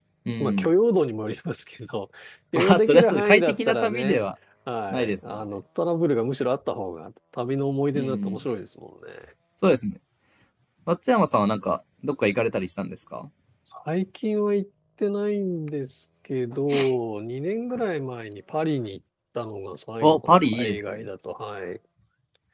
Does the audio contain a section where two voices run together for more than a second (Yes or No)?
Yes